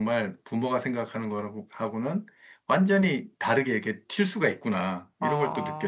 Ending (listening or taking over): taking over